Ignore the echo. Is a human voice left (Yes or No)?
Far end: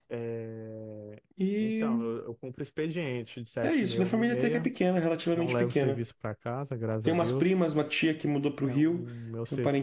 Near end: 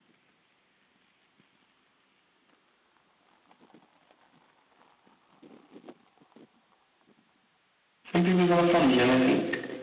Yes